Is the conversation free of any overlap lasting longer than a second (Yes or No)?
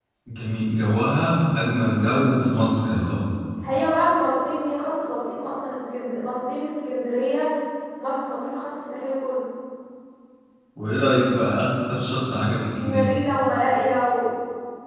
Yes